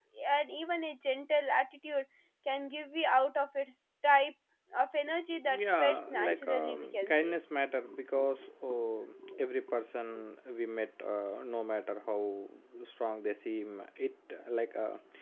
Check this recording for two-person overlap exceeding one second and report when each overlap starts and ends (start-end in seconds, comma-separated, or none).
5.7-7.4